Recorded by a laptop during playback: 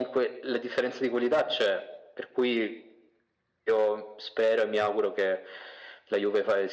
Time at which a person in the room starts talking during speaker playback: none

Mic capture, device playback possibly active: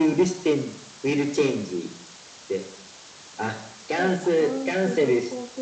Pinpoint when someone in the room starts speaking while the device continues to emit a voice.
4.0 s

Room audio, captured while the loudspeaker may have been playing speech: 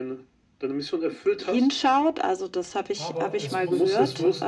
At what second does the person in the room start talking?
3.0 s

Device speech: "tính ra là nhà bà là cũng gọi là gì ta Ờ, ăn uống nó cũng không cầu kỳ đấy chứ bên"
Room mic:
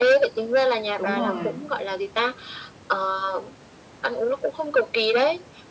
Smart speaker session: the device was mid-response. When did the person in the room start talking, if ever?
1.0 s

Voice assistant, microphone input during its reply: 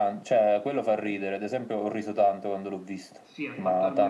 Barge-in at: 3.2 s

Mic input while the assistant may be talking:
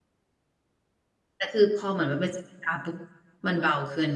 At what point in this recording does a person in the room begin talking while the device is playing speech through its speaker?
1.3 s

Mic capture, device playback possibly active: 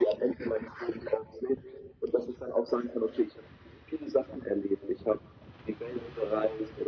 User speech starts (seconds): none

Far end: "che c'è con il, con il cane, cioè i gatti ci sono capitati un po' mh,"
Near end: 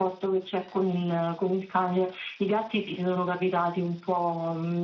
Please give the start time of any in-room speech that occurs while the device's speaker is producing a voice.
none

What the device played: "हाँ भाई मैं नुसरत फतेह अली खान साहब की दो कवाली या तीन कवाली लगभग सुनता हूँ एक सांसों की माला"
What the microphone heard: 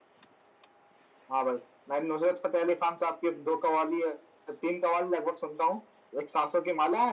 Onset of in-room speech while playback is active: none

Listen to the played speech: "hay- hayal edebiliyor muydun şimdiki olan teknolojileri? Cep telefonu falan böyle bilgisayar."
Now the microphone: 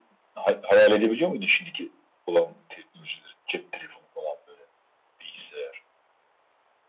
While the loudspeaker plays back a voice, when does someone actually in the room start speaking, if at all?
none

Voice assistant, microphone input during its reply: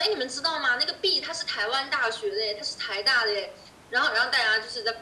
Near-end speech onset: none

